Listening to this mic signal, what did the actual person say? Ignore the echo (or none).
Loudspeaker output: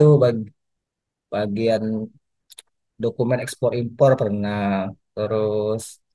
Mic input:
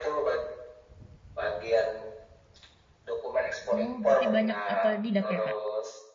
oh berarti banyak otodidak ya Kak?